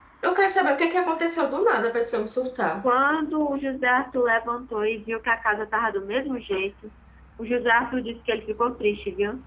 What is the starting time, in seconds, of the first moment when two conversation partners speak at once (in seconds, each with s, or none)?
none